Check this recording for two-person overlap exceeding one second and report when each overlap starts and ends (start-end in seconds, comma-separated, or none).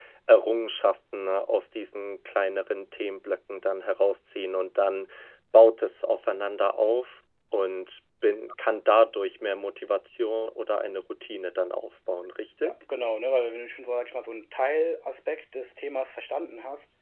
none